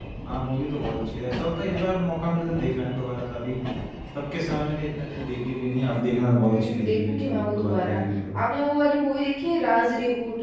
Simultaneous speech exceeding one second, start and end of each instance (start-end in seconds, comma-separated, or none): 6.4-8.0